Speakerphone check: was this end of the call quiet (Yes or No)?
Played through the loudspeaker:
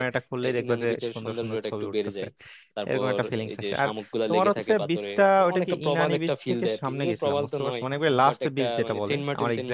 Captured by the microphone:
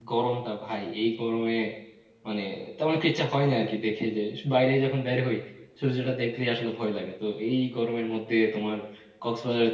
No